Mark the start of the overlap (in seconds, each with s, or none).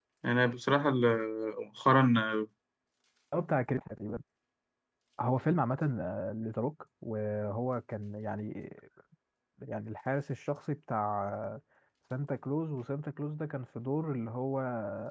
none